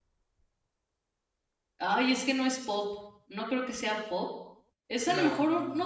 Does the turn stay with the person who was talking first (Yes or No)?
Yes